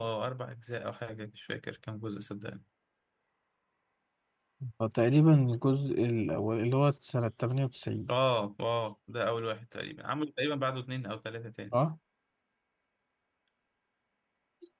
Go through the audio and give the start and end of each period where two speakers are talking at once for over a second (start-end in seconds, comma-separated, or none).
none